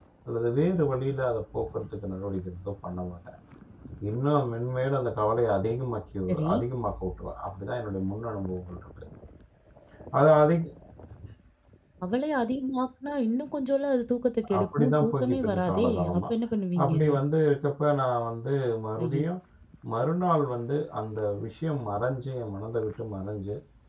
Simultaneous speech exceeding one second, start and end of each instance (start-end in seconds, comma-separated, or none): 14.6-16.2